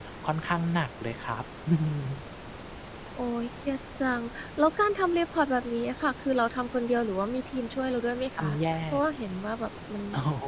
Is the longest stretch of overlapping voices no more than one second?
Yes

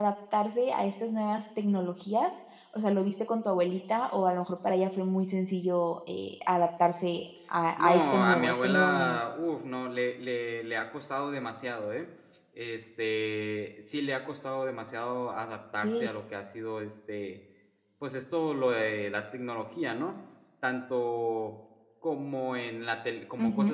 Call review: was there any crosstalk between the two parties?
Yes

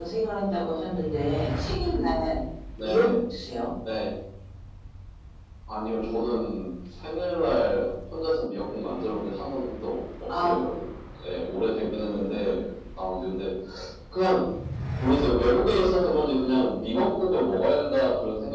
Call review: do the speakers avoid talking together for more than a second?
Yes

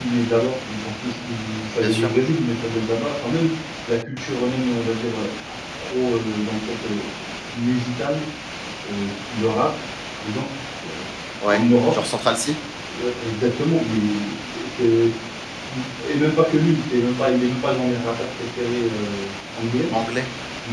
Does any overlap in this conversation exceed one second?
No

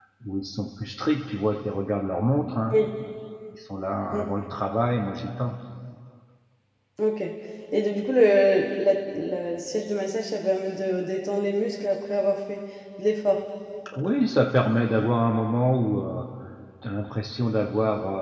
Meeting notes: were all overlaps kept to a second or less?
Yes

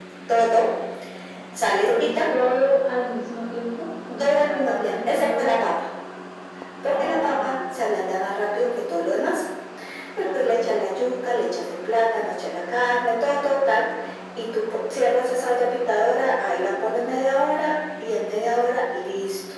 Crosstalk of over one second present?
Yes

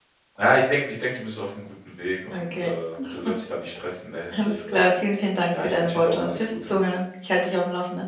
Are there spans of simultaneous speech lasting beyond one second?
Yes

